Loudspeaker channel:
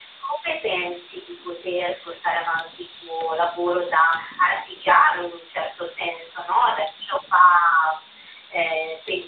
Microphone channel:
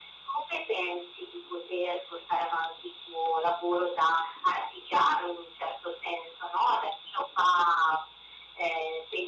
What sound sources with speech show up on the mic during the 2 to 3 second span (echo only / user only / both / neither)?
echo only